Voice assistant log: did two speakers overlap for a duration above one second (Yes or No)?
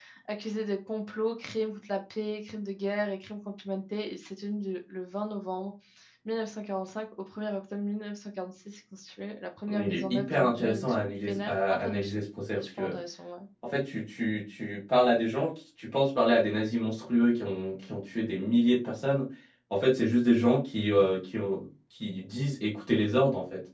Yes